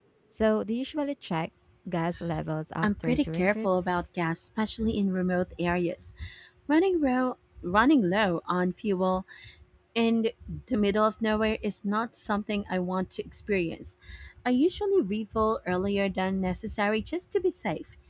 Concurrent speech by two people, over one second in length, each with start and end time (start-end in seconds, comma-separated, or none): 2.8-4.0